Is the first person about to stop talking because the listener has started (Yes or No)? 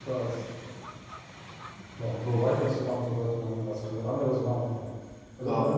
Yes